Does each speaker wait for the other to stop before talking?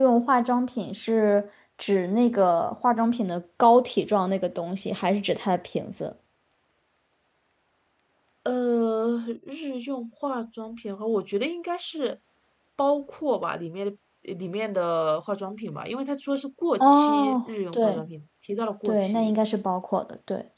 No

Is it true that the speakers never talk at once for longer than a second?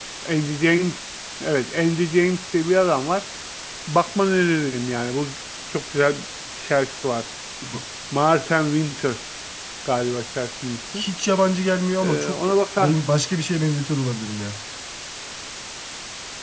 Yes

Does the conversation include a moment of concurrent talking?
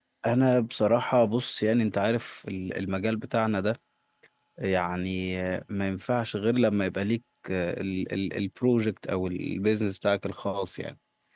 No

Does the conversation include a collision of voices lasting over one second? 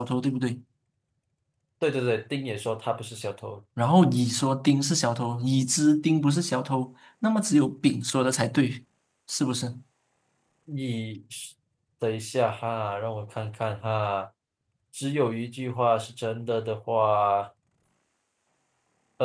No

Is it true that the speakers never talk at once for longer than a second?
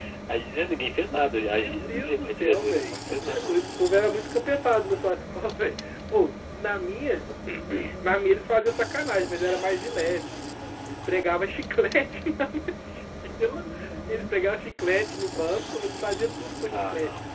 No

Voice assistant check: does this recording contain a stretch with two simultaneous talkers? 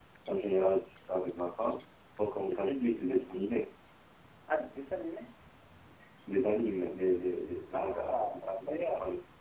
Yes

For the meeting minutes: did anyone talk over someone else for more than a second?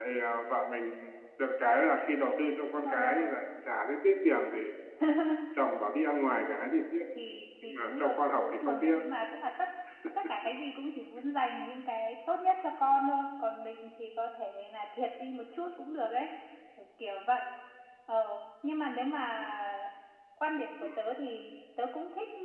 Yes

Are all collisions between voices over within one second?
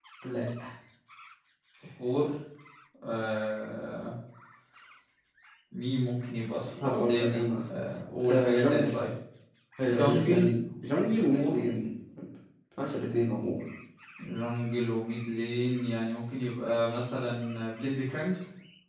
No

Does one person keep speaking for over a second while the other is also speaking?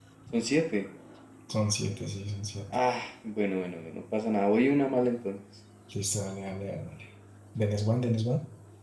No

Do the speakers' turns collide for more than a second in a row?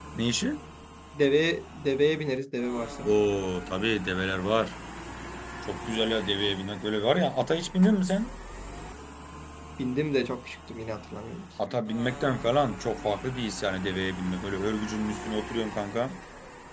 No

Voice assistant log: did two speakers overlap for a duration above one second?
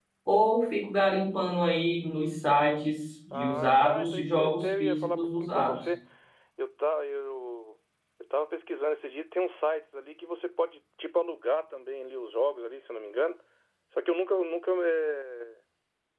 Yes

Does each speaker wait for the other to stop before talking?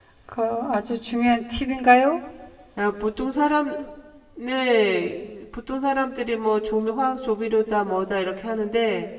Yes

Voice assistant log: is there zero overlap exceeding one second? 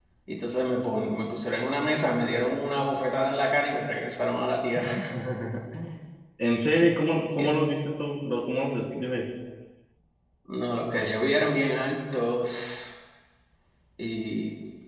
Yes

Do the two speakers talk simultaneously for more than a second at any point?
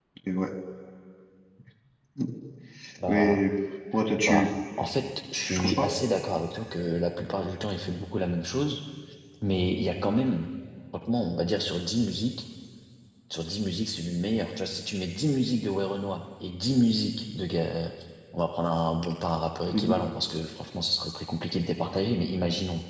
No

